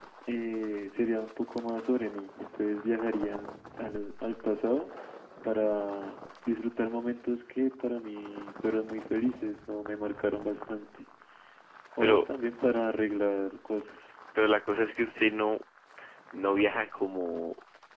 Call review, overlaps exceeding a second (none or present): none